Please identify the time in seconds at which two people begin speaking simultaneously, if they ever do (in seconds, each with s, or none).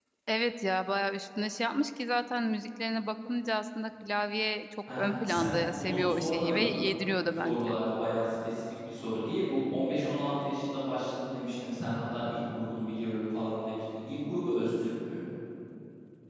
4.9 s